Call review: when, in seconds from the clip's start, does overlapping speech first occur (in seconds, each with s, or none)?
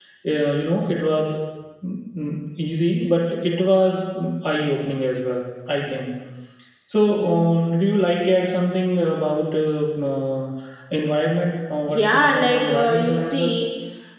11.9 s